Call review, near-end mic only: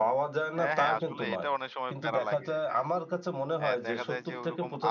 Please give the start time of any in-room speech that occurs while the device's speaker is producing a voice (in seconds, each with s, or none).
0.6 s